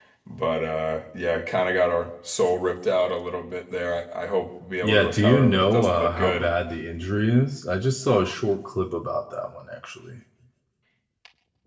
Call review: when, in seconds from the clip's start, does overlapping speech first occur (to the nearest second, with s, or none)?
5 s